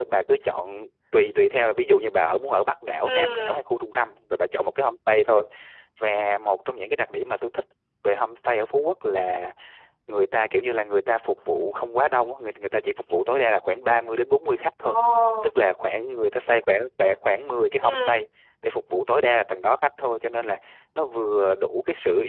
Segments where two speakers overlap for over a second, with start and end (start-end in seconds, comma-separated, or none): none